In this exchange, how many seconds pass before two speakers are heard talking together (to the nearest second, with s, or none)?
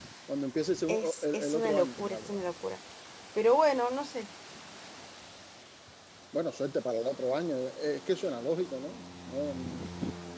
1 s